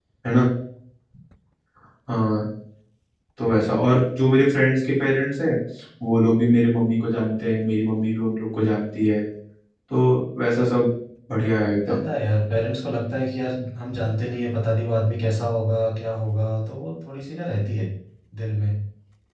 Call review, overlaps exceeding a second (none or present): none